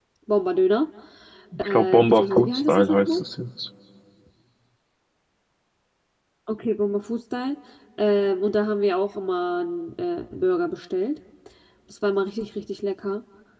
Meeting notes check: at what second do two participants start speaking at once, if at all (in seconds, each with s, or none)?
1.6 s